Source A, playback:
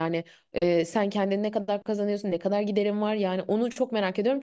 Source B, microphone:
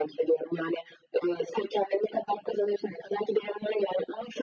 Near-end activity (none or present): none